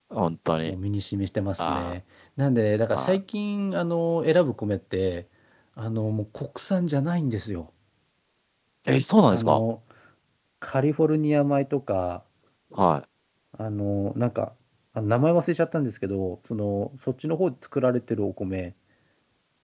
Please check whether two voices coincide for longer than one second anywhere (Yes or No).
No